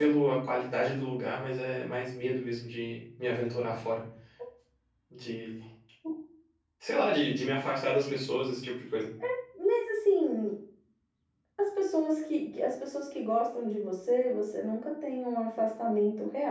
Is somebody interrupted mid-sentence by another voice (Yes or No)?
No